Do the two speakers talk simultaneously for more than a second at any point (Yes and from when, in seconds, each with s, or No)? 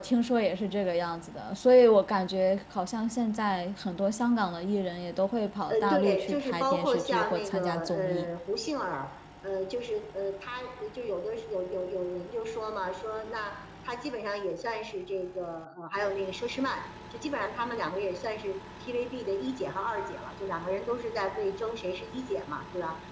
Yes, from 5.7 s